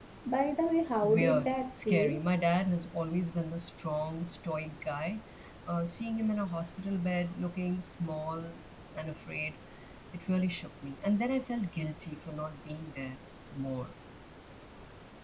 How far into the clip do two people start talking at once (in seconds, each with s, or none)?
1.0 s